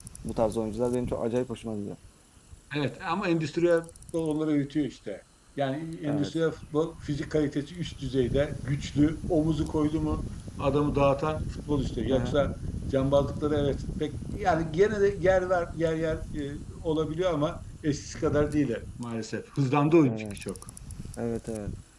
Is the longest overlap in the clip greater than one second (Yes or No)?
No